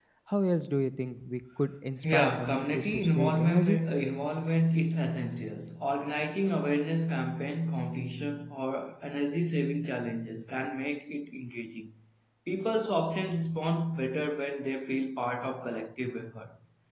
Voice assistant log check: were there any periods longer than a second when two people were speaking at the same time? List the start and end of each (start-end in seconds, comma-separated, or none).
2.0-3.8